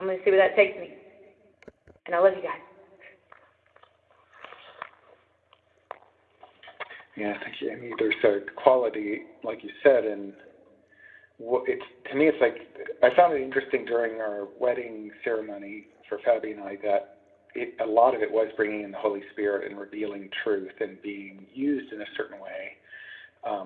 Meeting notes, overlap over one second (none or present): none